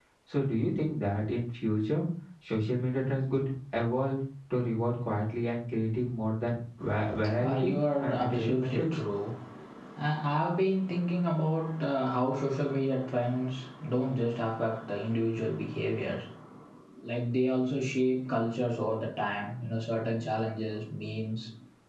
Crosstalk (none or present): present